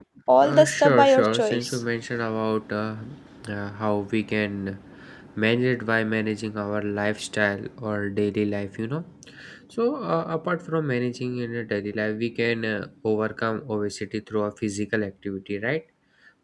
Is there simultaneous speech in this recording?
Yes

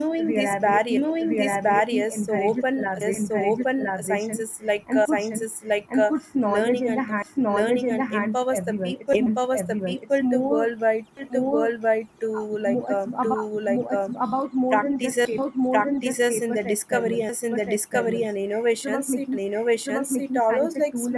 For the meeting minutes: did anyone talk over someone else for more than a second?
Yes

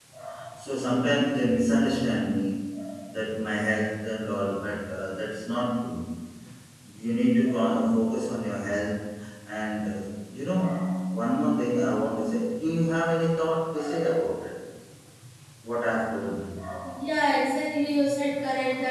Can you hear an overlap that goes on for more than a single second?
No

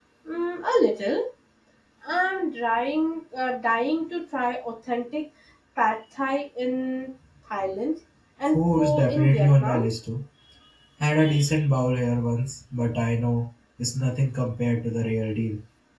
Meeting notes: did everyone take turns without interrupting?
No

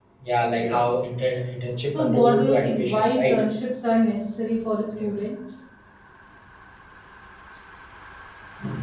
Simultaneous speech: Yes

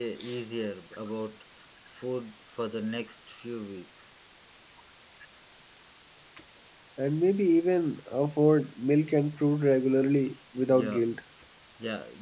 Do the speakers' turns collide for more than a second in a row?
No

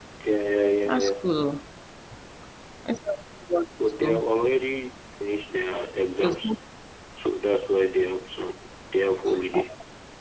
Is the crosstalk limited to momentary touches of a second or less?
Yes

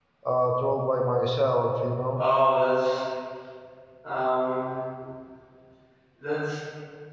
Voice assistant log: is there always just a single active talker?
Yes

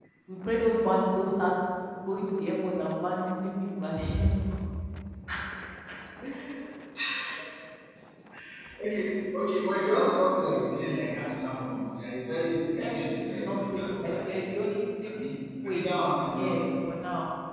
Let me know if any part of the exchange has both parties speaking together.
Yes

